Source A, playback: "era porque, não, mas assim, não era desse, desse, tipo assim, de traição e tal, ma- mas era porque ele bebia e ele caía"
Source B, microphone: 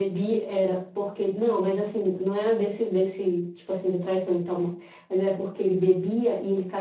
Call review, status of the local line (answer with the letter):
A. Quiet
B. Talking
A